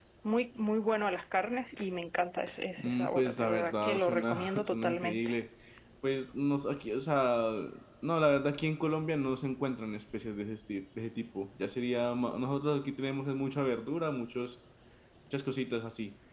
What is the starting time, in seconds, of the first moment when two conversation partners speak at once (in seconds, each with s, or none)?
2.8 s